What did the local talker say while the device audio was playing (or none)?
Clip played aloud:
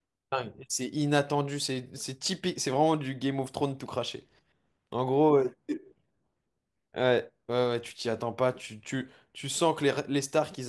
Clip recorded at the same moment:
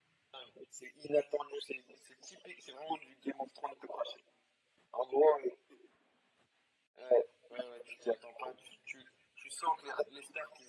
none